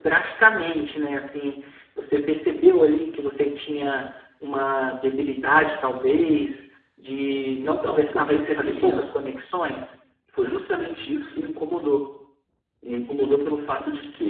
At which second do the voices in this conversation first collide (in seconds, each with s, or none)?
7.6 s